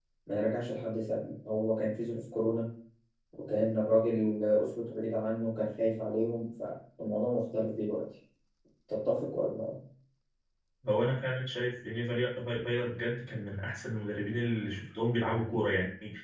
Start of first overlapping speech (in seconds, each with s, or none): none